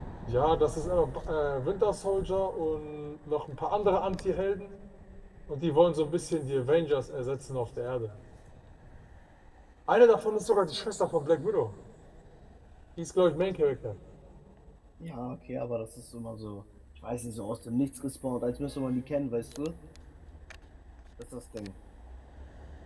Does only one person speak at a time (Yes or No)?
Yes